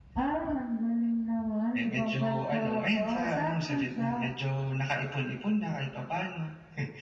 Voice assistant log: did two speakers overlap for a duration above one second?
Yes, from 1.7 s

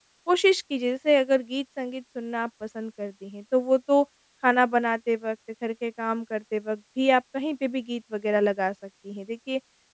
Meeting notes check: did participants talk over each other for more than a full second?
No

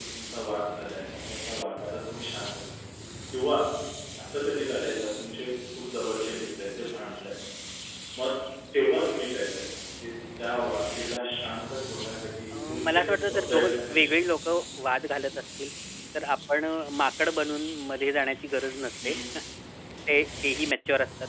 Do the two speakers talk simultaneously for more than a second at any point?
Yes, from 12.5 s

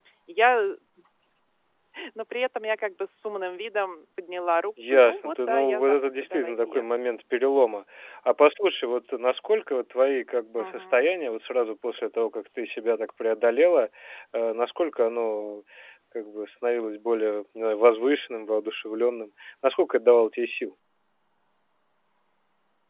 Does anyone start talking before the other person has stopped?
Yes, from 4.9 s

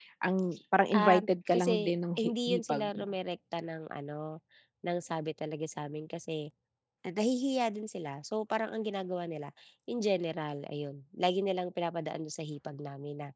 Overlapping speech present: Yes, from 0.9 s

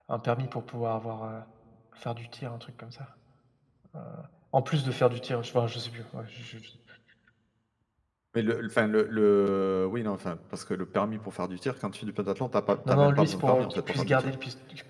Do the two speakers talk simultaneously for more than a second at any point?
Yes, from 12.8 s

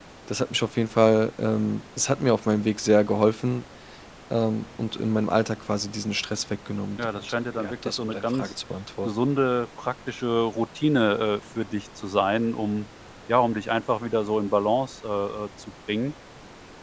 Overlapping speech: Yes, from 7.0 s

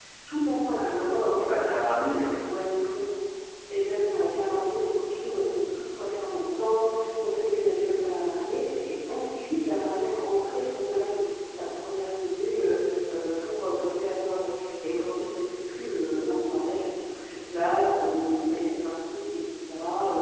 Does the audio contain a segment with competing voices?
Yes, from 0.7 s

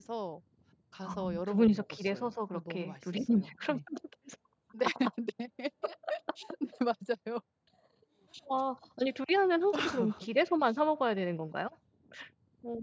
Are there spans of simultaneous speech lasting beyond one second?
Yes, from 1.0 s

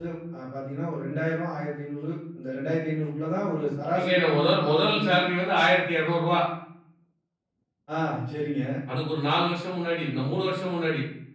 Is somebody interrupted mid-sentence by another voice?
Yes, from 3.9 s

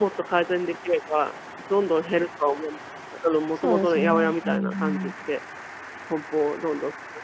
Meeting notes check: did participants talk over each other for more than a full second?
Yes, from 3.6 s

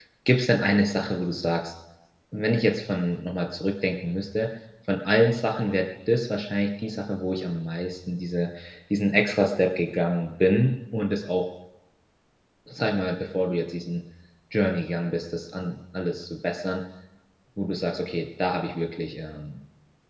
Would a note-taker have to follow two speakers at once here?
No

